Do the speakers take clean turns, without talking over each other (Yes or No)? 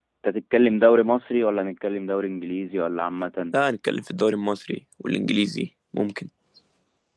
Yes